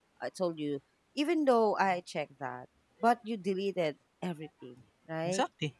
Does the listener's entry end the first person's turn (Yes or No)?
No